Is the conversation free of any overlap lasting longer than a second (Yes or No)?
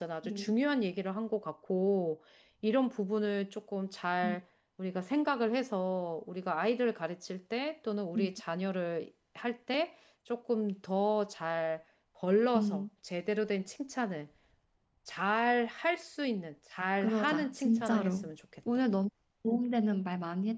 No